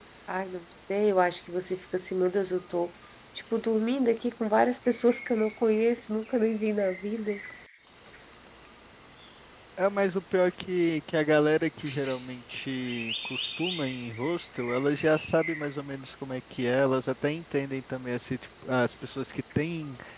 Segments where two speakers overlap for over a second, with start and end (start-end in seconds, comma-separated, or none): none